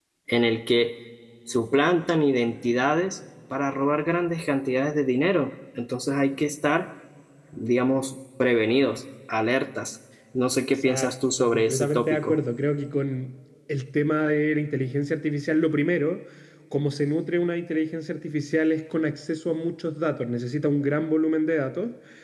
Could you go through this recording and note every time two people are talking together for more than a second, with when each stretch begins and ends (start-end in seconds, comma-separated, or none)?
10.8-12.4